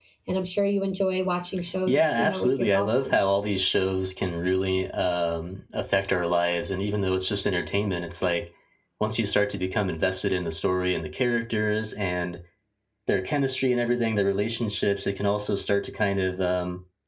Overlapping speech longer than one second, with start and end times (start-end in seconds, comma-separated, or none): 1.9-3.2